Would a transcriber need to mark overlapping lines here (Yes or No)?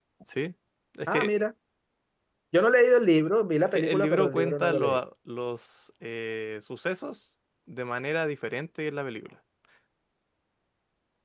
Yes